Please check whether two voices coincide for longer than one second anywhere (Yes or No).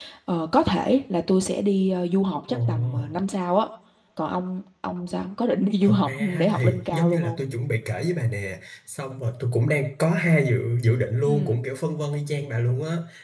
Yes